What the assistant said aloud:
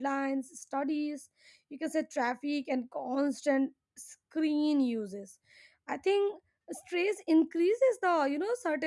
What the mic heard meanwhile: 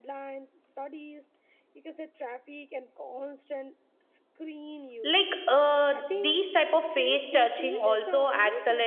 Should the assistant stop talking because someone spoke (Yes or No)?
Yes